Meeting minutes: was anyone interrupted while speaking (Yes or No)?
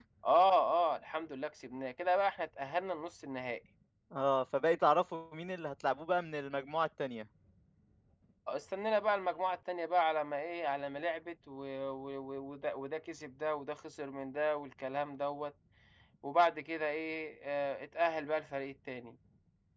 No